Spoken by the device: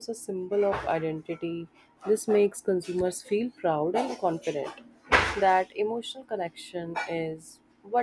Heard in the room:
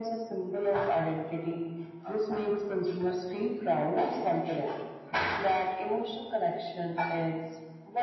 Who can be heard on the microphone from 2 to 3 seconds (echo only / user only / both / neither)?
echo only